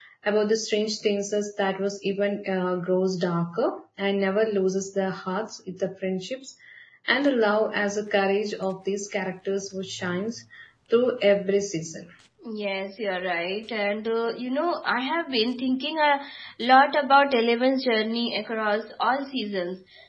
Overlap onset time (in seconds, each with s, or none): none